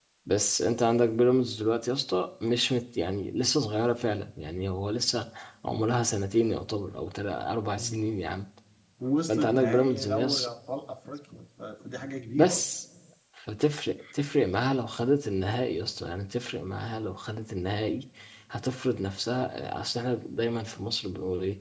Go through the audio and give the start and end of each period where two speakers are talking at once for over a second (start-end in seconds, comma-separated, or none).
9.3-10.5